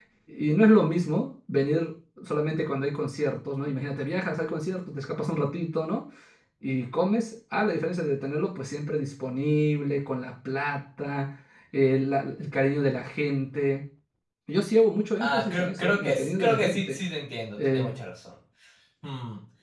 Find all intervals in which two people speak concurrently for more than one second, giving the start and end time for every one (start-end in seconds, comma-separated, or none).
15.2-17.0